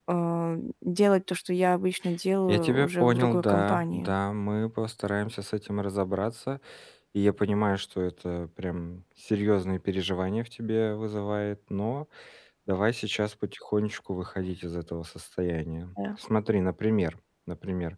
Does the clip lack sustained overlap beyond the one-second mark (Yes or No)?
No